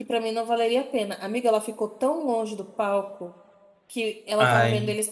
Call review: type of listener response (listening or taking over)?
listening